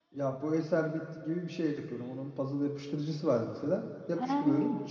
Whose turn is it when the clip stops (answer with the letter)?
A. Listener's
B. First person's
B